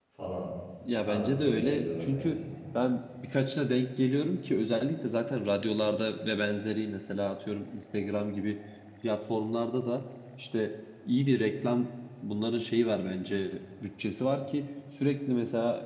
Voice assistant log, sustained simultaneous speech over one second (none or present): present